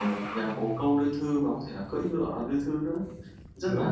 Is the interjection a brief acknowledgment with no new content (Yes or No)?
No